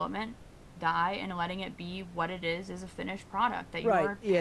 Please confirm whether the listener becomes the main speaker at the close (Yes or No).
Yes